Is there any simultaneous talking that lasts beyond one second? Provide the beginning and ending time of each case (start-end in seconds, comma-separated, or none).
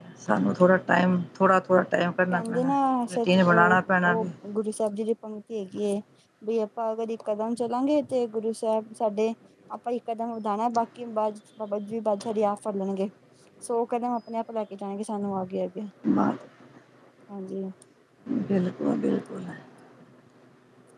3.1-4.3